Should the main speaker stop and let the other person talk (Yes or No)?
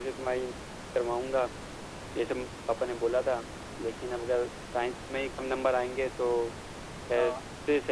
No